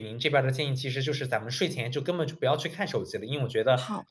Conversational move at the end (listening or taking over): listening